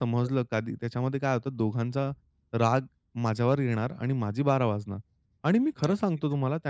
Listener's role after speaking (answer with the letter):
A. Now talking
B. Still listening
B